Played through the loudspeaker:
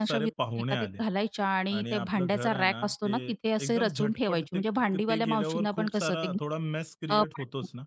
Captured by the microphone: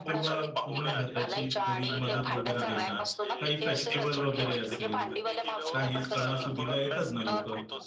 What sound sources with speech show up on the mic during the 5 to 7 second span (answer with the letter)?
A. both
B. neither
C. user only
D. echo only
A